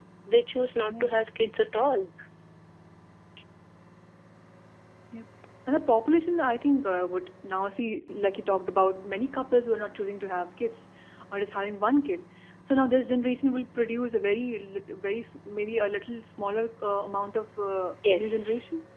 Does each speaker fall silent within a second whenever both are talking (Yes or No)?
Yes